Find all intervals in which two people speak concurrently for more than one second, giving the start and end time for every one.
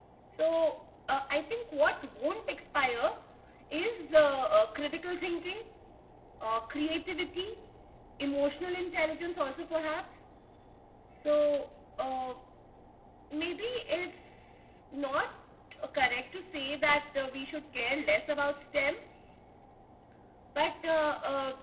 none

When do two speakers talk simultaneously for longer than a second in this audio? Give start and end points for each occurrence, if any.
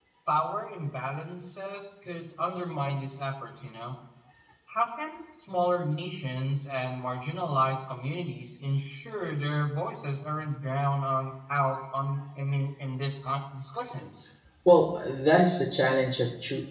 none

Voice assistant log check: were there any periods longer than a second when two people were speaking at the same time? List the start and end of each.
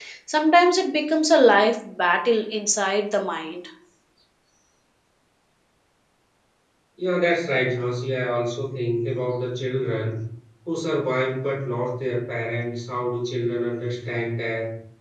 none

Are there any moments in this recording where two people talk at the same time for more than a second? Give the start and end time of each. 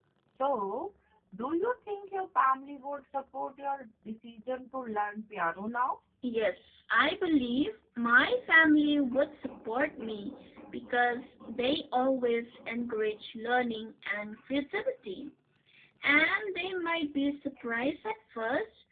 none

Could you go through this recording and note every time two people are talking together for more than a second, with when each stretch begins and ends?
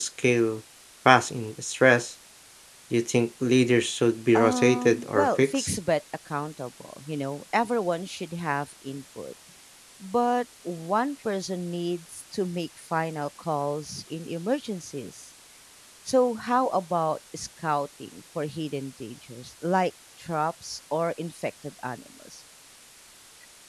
4.4-5.8

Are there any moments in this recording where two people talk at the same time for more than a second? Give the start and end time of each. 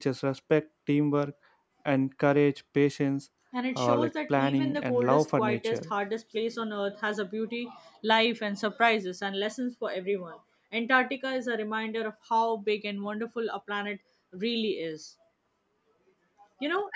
3.8-5.9

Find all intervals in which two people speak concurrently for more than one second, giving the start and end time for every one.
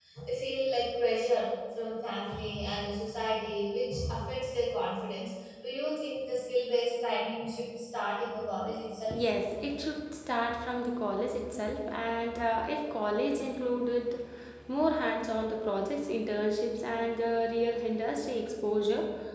none

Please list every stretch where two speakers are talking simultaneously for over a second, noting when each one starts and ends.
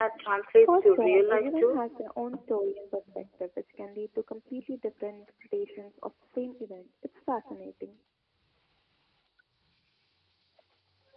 0.6-1.9

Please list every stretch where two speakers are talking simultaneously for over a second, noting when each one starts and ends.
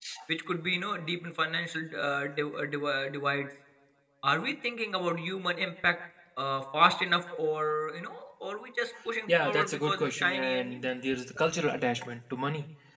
9.4-10.8

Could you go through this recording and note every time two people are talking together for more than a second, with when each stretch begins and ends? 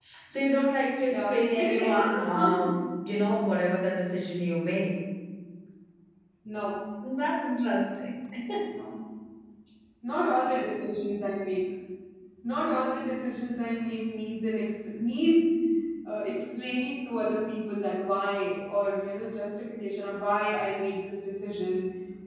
1.1-2.8

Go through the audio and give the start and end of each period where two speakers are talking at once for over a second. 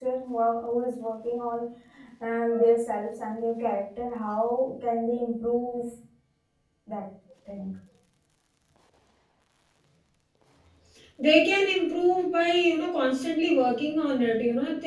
none

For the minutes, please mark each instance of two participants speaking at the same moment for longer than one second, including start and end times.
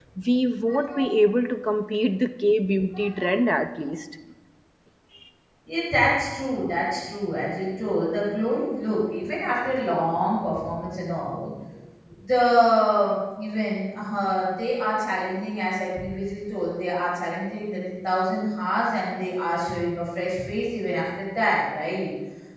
none

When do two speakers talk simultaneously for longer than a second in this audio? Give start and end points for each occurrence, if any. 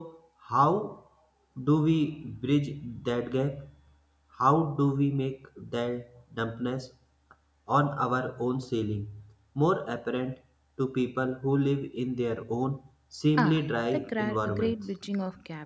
13.4-14.8

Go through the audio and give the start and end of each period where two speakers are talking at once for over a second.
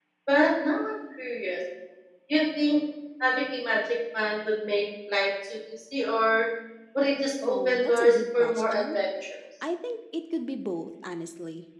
7.4-9.0

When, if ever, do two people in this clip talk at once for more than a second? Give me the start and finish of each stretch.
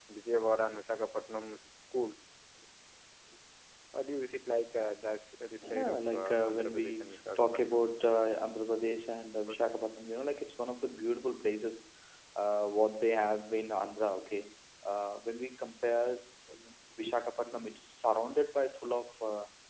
5.6-7.9

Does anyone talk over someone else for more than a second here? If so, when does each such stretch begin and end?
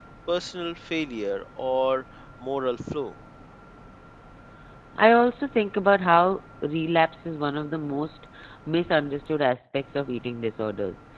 none

